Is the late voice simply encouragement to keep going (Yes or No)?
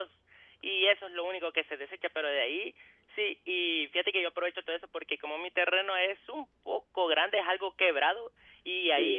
Yes